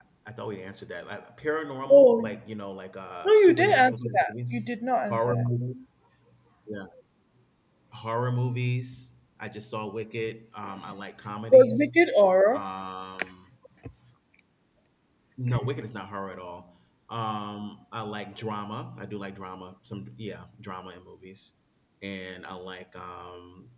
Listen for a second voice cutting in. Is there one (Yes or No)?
Yes